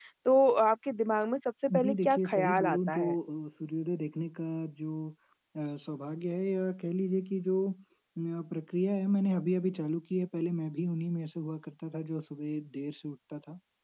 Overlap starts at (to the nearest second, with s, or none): 2 s